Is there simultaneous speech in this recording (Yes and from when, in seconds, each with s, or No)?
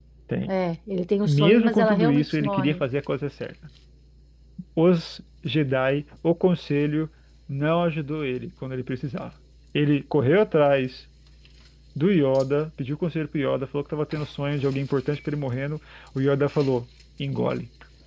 Yes, from 1.2 s